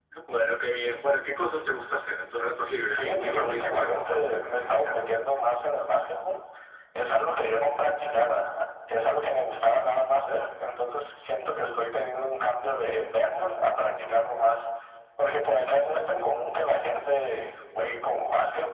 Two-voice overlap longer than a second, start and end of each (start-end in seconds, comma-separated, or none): 2.9-5.0